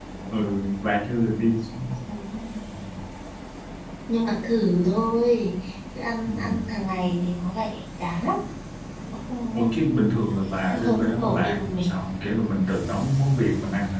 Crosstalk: present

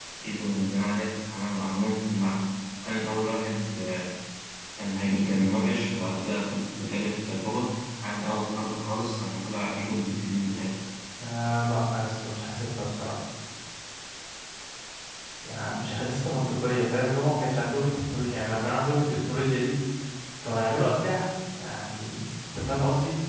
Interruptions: none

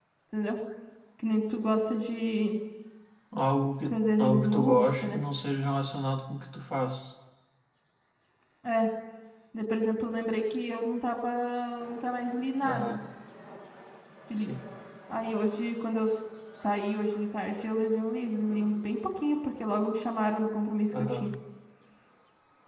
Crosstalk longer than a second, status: present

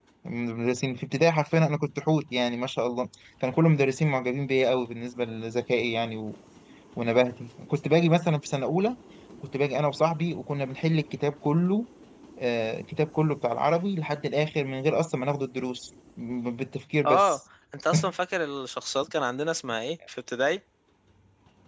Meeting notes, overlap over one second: none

